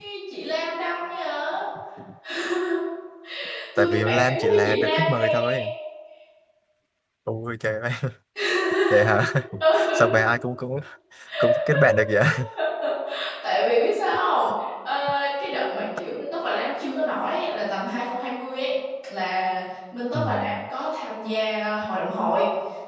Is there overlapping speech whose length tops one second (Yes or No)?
Yes